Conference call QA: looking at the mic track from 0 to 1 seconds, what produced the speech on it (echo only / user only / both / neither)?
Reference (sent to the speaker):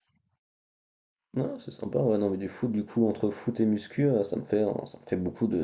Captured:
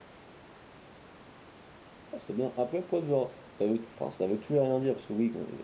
neither